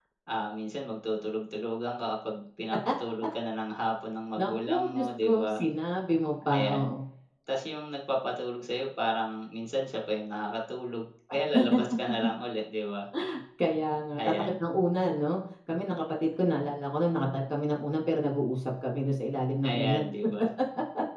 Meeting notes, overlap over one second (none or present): present